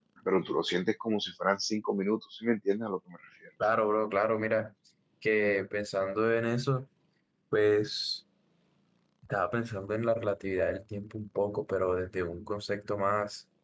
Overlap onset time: none

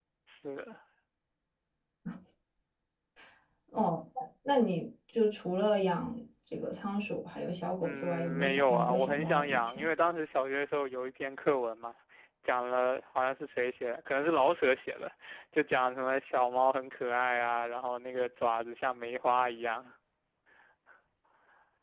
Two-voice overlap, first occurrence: 7.8 s

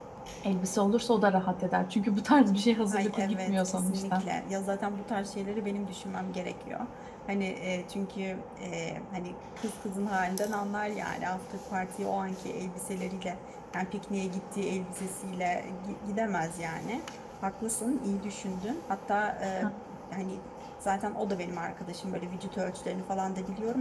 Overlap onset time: 2.9 s

